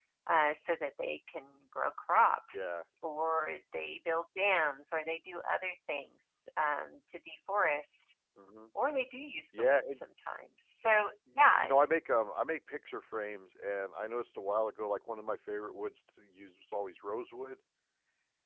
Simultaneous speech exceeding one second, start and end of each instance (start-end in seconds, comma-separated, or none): none